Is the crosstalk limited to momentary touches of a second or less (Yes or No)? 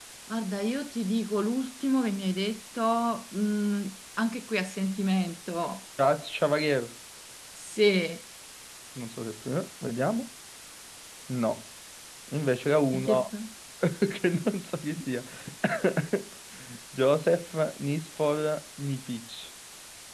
Yes